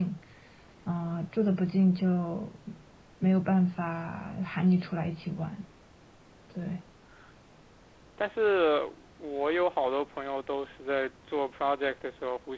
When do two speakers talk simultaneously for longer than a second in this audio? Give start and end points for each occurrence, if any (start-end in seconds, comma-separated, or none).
none